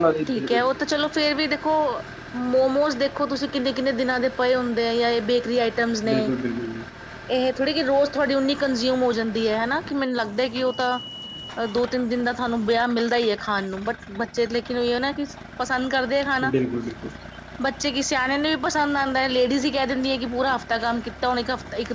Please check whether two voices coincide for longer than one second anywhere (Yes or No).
No